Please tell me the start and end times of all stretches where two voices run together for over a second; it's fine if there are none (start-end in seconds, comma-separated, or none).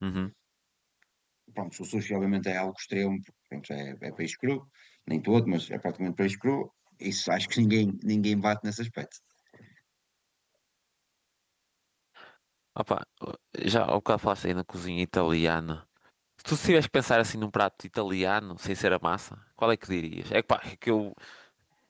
none